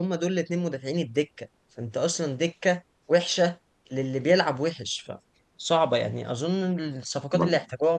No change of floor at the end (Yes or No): Yes